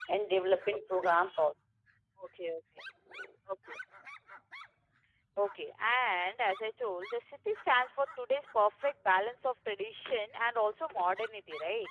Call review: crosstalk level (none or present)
none